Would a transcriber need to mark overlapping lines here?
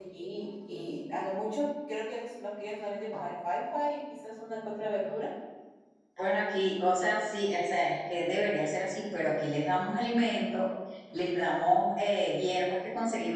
No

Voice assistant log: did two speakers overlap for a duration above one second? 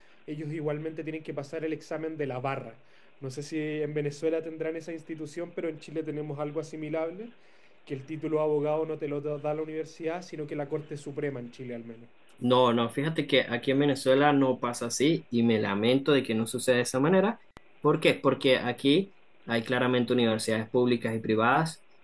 No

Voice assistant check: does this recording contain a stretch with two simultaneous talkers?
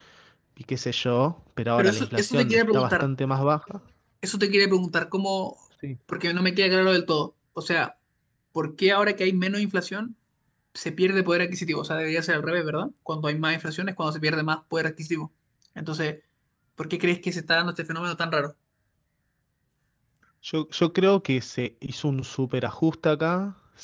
Yes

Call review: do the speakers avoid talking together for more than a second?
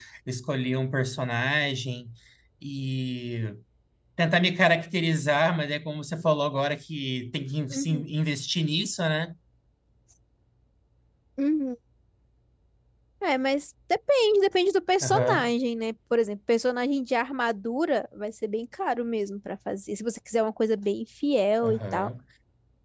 Yes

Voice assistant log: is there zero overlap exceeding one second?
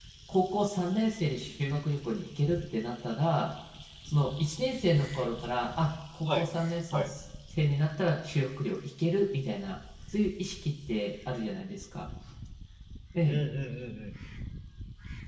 Yes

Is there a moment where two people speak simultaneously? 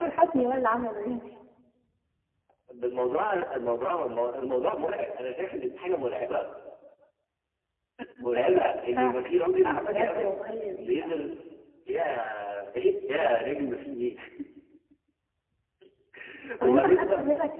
Yes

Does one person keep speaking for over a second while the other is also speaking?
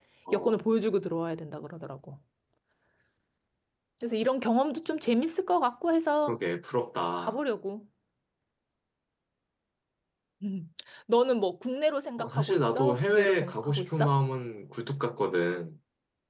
Yes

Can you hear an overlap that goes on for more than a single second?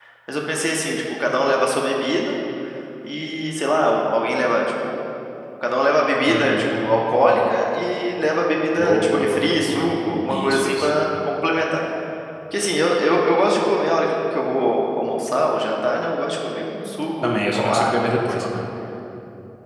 Yes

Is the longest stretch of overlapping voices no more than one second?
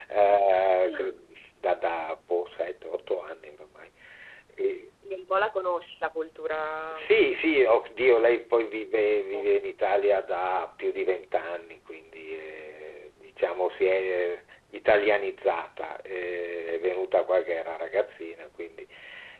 Yes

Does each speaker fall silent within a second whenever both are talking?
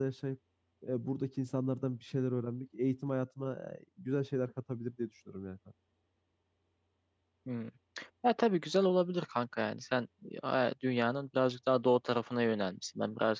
Yes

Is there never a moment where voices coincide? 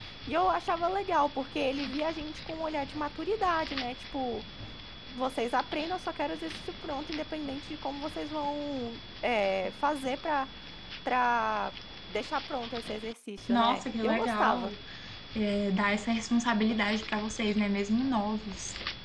No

